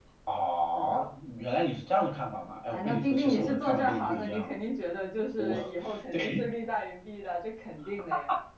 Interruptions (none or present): present